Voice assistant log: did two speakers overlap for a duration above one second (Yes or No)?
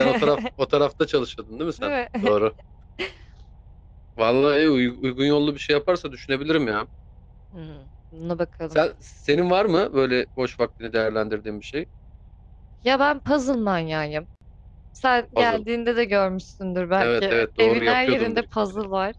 Yes